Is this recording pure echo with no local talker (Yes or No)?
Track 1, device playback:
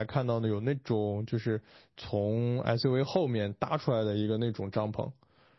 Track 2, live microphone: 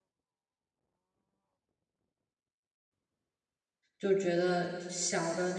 No